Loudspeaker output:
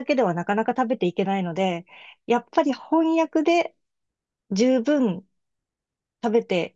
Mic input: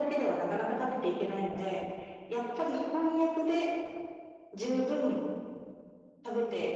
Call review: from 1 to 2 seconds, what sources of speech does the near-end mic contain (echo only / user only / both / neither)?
echo only